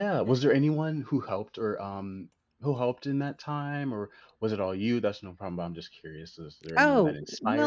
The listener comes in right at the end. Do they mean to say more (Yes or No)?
Yes